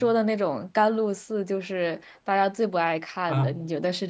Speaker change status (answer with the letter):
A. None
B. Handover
B